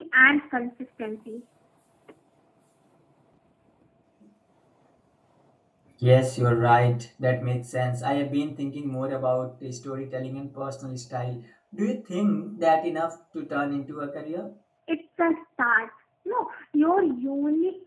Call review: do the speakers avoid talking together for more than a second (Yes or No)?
Yes